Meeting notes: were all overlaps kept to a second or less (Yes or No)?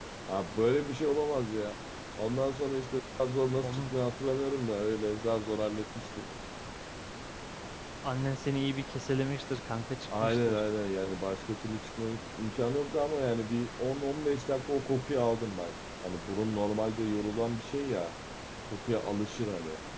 Yes